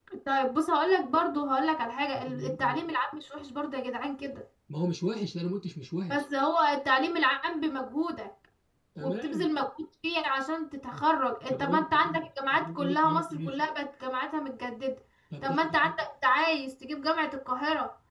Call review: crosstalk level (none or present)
present